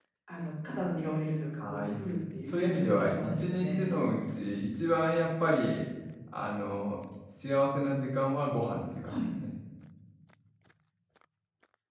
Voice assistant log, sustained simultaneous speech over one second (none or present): present